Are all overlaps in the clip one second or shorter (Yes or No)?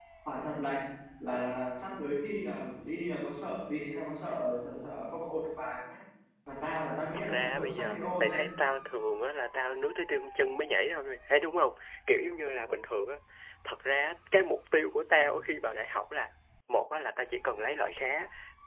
No